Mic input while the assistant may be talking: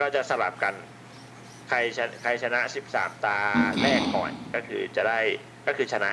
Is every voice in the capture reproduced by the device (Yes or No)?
No